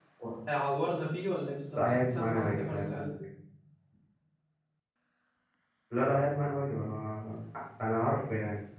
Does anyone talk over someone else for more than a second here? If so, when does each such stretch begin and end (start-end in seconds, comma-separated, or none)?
1.8-3.1